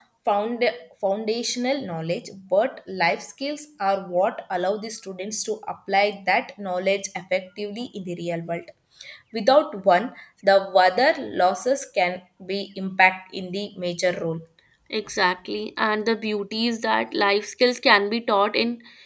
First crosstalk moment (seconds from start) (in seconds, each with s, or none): none